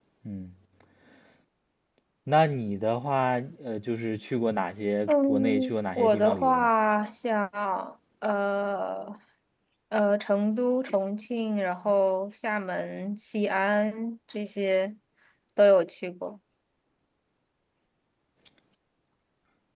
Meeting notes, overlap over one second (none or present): present